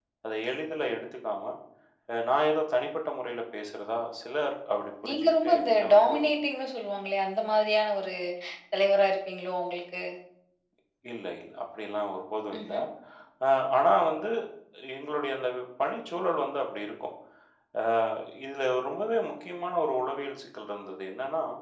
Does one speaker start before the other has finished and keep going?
Yes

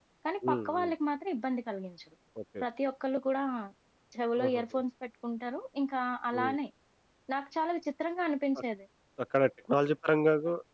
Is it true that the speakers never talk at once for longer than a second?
Yes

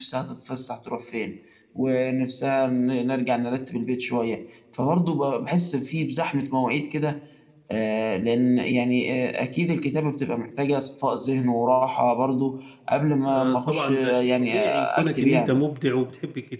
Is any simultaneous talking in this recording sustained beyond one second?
Yes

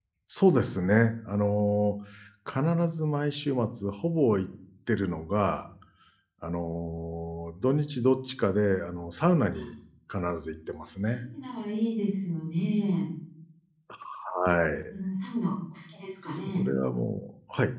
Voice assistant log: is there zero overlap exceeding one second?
Yes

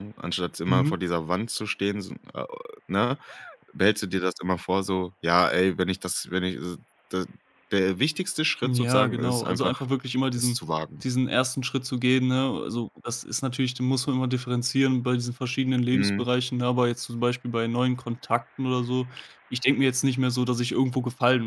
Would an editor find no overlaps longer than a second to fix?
No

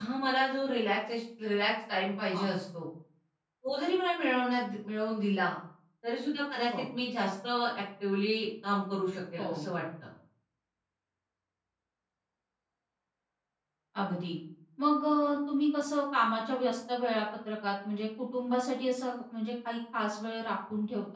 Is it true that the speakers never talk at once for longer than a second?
Yes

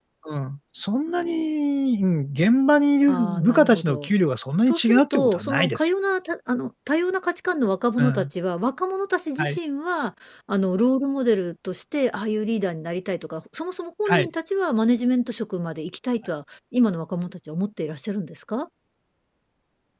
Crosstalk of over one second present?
Yes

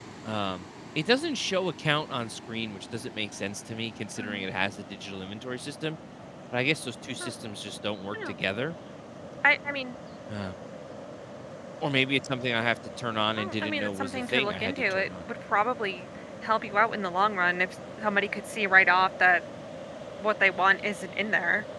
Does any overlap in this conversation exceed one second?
Yes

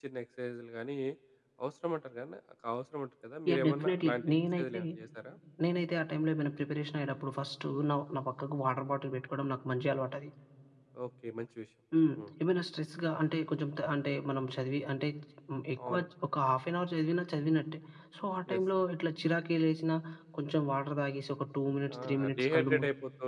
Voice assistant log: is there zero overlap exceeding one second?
No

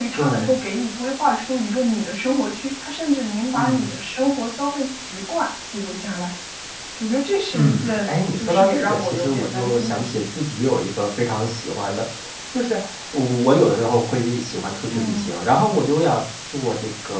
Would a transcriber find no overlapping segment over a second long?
No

